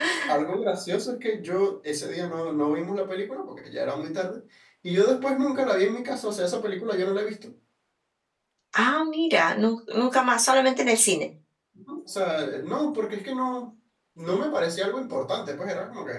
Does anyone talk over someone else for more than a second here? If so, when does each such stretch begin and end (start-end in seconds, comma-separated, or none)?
none